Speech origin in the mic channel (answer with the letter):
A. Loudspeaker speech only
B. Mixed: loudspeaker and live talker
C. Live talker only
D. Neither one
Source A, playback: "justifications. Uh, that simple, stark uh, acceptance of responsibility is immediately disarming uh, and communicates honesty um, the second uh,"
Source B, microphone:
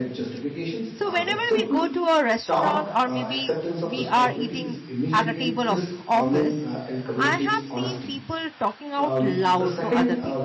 B